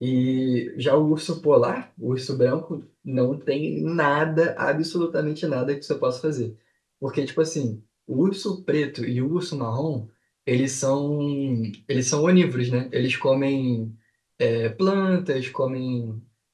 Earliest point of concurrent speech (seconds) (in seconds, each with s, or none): none